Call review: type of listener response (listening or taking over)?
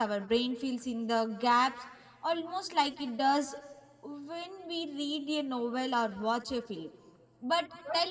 listening